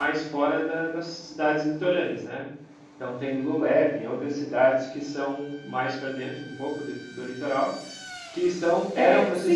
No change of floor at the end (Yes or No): Yes